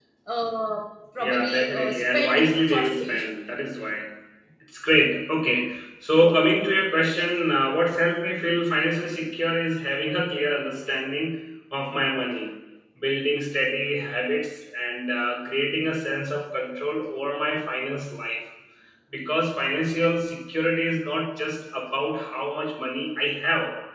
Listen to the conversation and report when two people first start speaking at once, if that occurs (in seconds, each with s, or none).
1.2 s